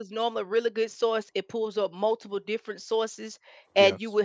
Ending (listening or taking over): listening